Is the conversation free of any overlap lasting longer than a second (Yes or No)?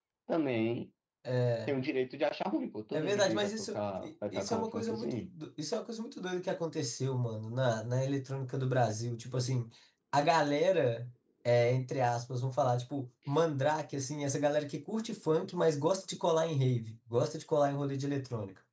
No